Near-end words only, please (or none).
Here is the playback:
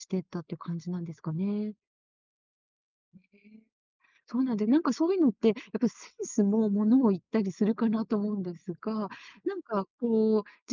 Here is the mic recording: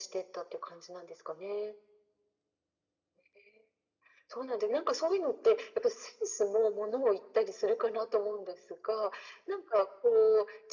none